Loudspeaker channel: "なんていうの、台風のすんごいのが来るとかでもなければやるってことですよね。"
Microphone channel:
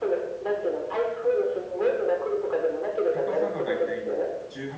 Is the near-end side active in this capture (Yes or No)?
Yes